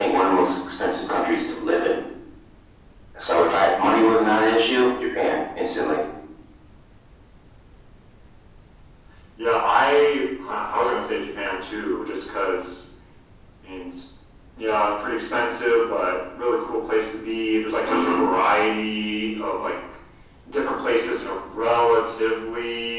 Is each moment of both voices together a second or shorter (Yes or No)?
Yes